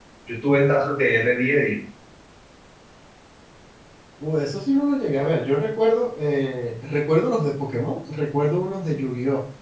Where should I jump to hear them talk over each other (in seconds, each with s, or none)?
none